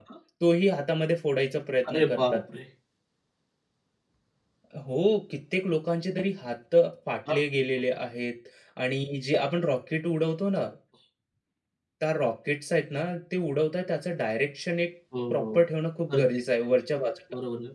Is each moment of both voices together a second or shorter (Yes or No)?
Yes